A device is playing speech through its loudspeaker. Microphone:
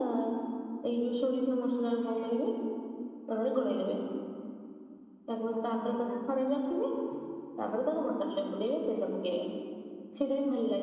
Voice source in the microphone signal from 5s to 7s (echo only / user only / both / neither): both